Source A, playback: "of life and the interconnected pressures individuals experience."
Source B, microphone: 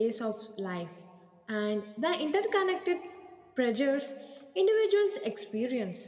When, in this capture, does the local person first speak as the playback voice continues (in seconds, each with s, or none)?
none